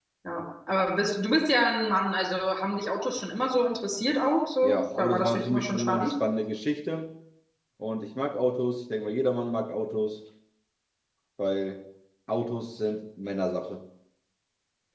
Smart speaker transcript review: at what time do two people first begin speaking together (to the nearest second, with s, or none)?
5 s